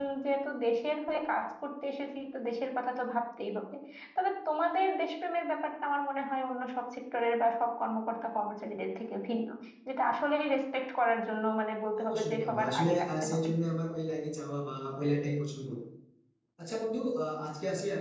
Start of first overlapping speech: 12.0 s

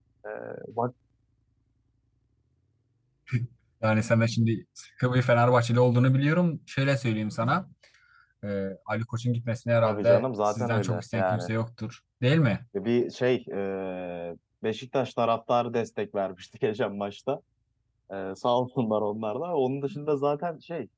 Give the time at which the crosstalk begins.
9.8 s

